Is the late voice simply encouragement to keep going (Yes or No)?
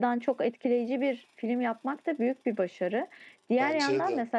Yes